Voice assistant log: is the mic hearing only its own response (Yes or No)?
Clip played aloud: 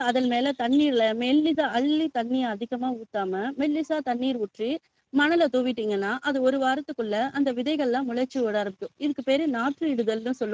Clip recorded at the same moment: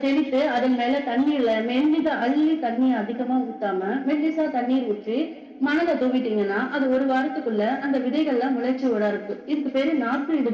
Yes